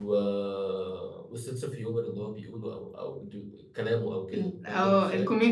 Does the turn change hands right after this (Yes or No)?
Yes